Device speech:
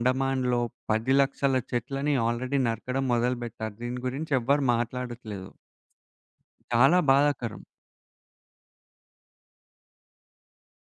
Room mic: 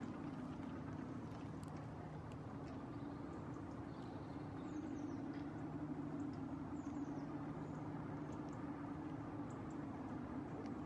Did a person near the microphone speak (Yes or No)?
No